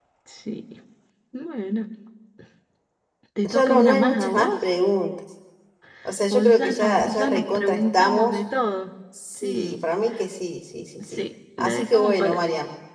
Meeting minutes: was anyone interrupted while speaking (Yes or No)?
Yes